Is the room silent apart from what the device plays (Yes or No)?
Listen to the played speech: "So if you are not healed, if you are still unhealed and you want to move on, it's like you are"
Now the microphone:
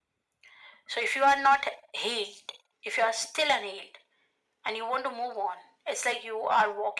Yes